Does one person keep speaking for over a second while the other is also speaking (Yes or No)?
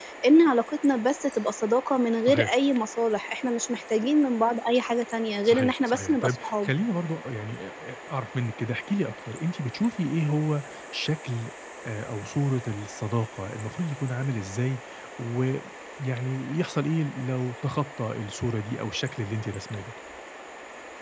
Yes